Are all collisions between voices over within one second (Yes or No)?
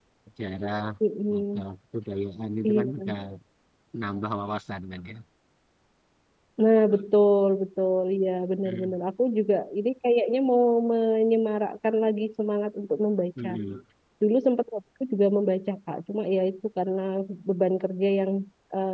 Yes